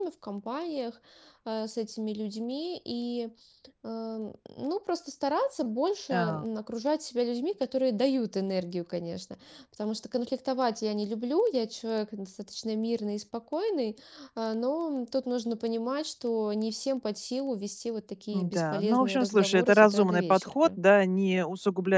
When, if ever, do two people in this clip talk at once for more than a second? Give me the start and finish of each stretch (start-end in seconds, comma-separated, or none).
18.3-20.5